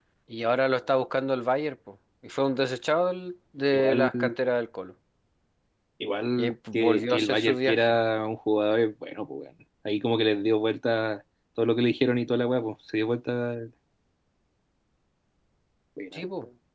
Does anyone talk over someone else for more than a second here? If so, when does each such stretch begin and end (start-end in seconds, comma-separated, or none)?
6.4-7.9